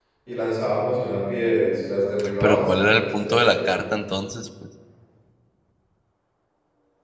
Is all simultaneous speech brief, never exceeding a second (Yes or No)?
No